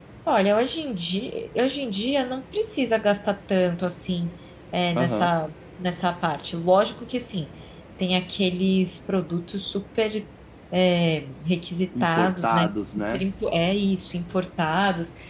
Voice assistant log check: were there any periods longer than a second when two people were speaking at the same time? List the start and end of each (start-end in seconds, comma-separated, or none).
12.0-13.2